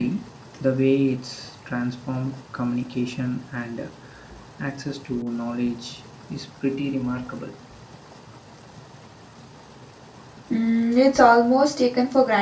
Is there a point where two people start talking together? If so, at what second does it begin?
none

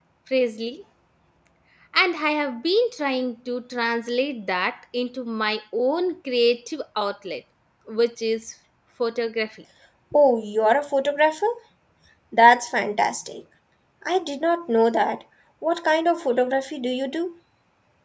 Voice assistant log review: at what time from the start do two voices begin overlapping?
none

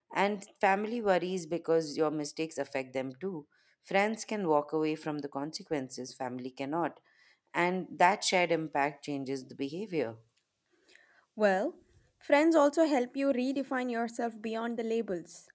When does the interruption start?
none

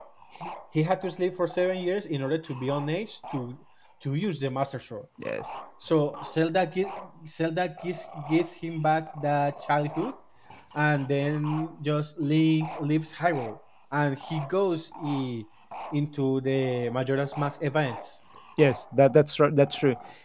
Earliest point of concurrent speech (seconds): none

